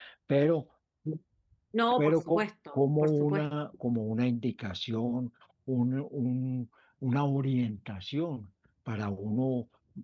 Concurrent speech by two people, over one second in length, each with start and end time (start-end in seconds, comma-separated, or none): 2.0-3.4